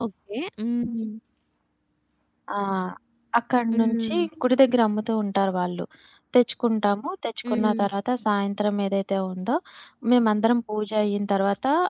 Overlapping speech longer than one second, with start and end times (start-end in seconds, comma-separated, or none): none